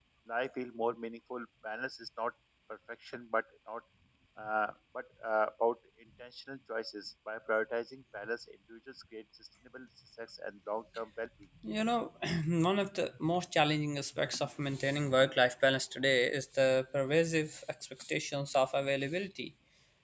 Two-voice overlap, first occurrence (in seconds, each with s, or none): none